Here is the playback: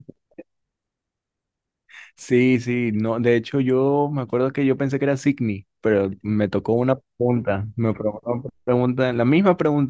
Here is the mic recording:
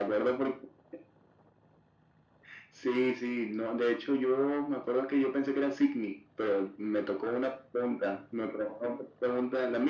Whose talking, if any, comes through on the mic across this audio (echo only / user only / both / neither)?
echo only